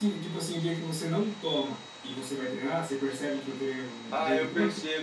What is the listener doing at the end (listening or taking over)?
taking over